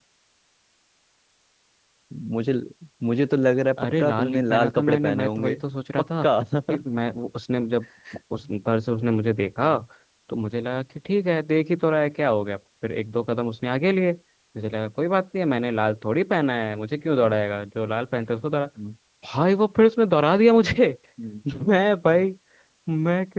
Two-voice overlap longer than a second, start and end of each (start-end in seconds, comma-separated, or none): 3.8-5.6